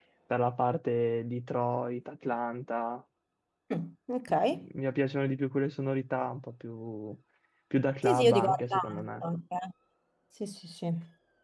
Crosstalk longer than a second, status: present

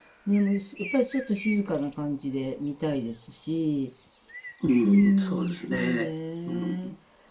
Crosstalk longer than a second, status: present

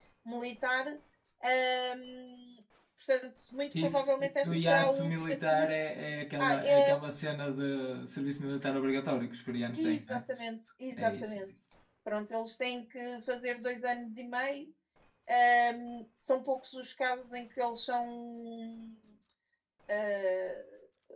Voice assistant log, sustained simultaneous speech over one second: present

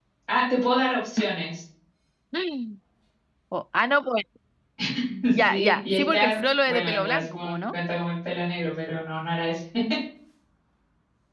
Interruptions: present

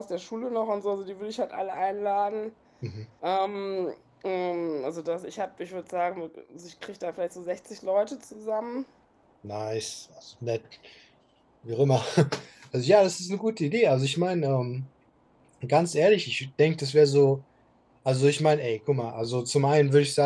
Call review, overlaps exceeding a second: none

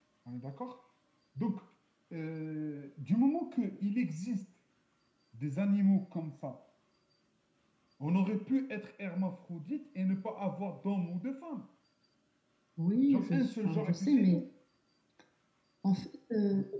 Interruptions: present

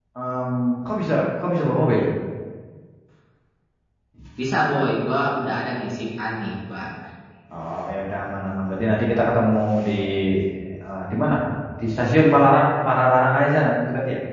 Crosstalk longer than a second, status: none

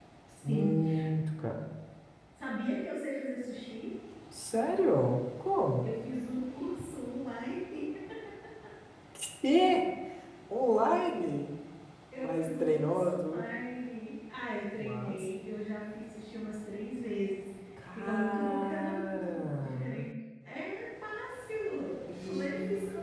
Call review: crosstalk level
present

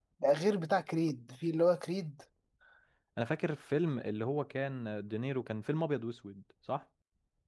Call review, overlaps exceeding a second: none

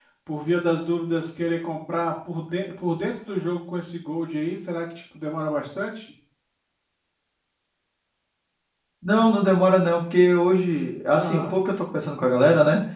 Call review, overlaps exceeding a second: none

